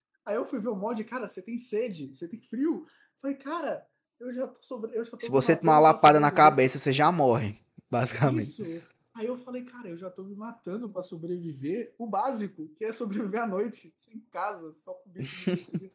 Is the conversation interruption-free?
No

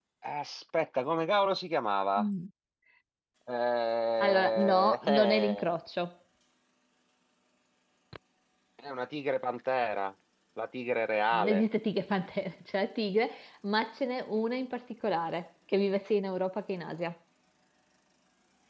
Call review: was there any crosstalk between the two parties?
Yes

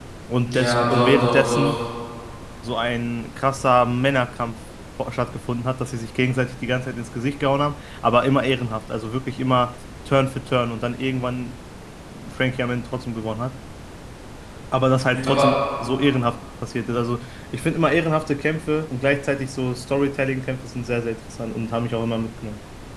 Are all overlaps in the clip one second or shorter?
No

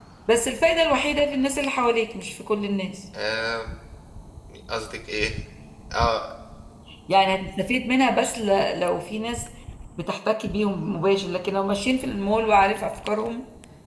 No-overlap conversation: Yes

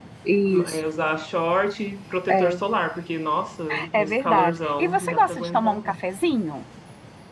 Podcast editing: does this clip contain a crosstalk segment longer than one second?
Yes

